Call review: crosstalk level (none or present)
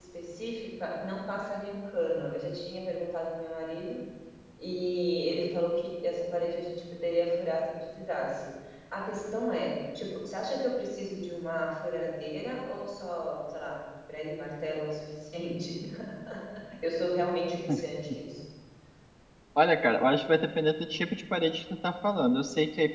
none